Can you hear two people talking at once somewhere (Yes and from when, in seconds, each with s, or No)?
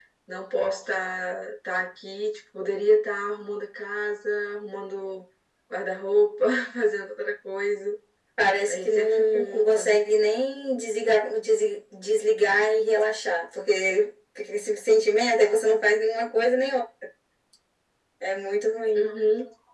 Yes, from 8.7 s